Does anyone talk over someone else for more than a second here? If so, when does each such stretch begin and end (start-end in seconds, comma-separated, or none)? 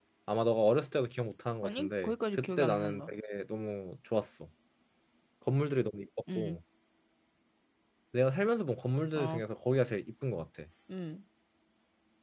1.6-3.1